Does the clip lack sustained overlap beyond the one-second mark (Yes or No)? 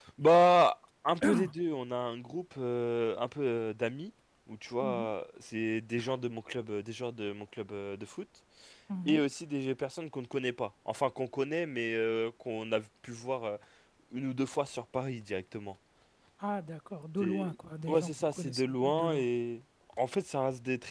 No